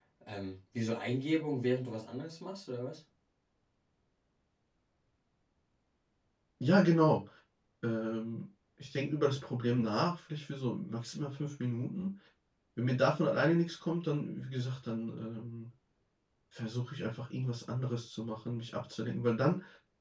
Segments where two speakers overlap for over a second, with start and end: none

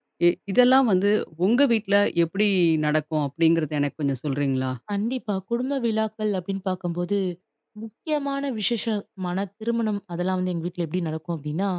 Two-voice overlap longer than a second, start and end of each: none

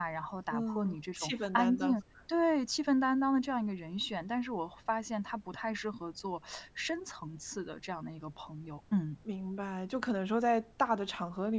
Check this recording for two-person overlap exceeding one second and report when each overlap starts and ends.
0.5-2.0

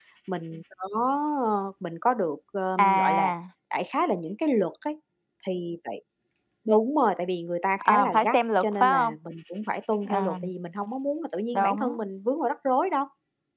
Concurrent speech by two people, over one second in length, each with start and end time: 7.8-9.2

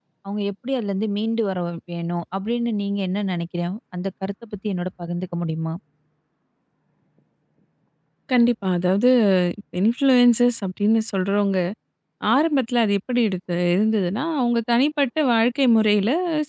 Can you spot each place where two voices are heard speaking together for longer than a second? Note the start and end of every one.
none

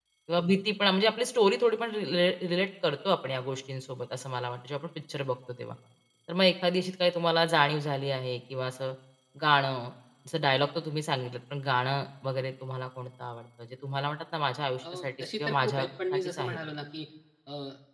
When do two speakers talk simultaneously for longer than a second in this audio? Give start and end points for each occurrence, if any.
14.9-16.6

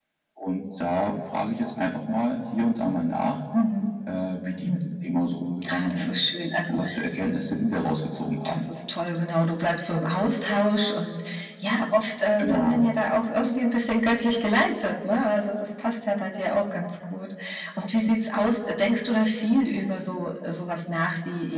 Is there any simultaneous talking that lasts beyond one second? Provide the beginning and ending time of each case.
none

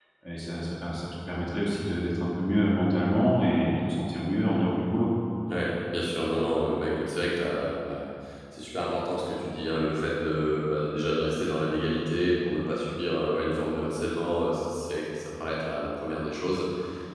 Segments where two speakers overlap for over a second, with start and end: none

